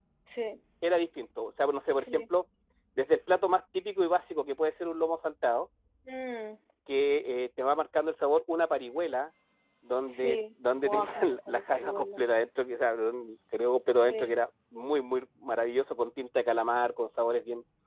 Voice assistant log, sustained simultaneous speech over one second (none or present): present